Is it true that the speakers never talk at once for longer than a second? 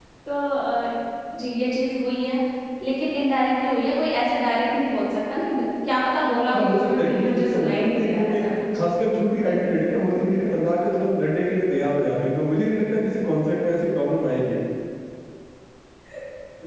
No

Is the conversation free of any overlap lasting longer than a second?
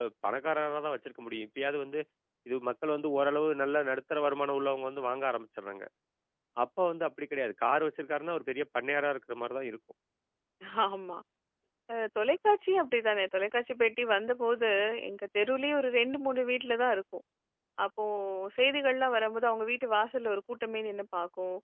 Yes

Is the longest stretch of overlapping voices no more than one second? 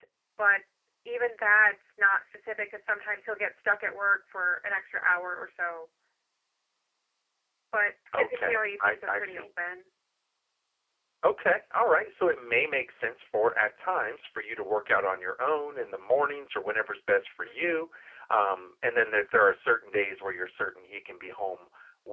No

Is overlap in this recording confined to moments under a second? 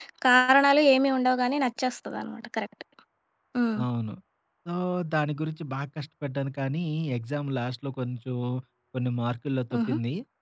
Yes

